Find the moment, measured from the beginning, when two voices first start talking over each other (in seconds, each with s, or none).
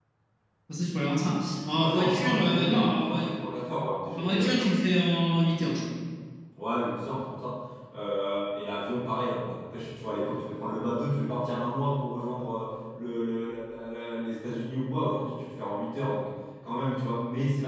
1.8 s